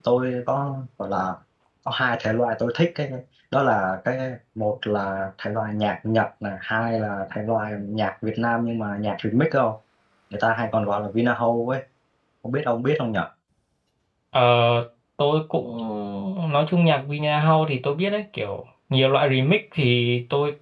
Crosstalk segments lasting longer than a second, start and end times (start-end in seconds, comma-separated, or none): none